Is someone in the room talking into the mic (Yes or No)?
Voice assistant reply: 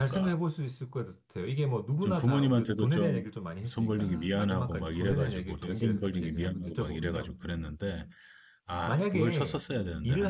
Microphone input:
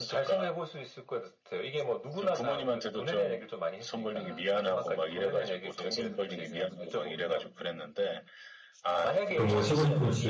Yes